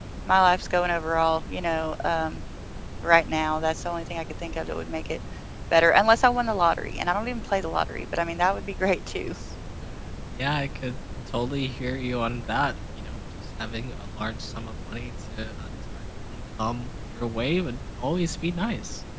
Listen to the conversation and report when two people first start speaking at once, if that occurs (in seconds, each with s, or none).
none